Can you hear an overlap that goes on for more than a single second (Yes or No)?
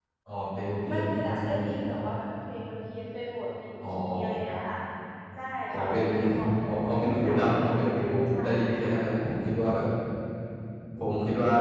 Yes